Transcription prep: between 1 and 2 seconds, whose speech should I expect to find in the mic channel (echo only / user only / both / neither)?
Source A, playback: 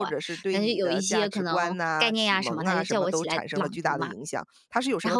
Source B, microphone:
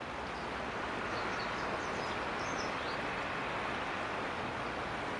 neither